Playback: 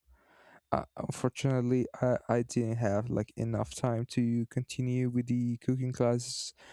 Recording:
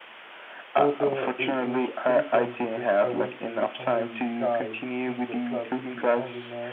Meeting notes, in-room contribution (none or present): present